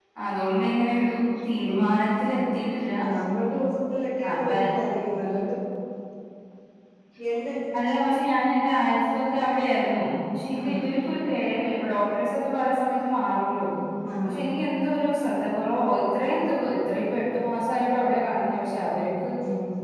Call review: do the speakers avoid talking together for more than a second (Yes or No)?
Yes